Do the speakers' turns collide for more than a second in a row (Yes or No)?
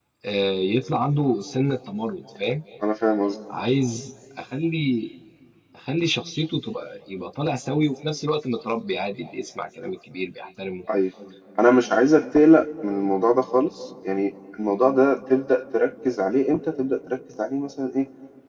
No